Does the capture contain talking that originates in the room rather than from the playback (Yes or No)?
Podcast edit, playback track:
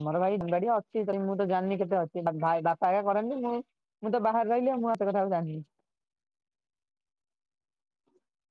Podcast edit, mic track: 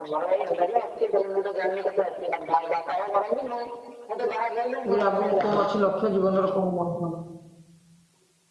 Yes